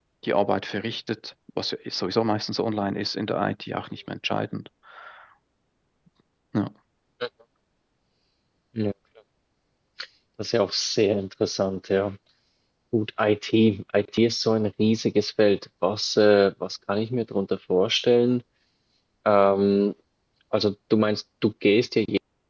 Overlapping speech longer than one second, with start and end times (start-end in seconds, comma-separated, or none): none